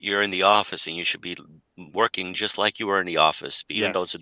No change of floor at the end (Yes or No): Yes